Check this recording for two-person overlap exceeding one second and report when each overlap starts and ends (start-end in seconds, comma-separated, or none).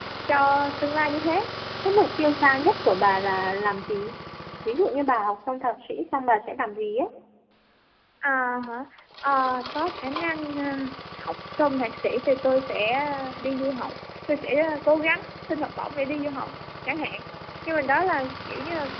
none